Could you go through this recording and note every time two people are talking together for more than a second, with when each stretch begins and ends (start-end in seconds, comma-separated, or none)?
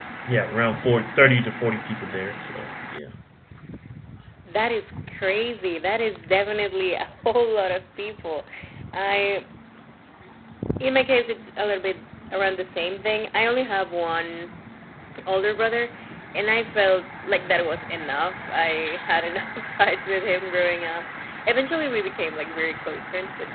none